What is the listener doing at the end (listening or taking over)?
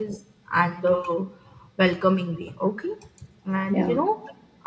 listening